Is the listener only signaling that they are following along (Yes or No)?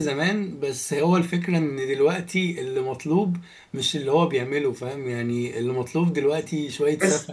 Yes